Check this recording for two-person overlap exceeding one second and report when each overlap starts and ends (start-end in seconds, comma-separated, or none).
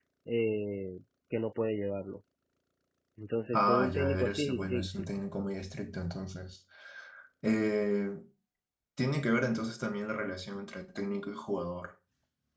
3.5-5.1